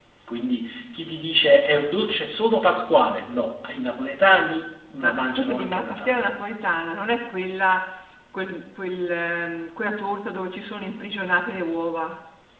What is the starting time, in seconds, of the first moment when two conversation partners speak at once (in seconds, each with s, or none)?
5.0 s